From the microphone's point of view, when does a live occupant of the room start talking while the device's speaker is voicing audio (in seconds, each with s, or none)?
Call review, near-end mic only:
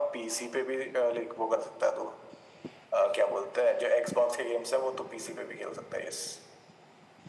none